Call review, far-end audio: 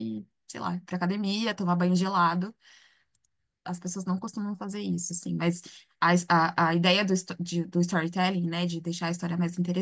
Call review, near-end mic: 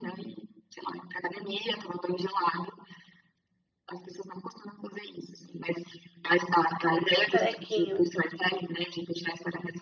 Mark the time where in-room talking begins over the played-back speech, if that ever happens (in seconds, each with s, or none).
6.8 s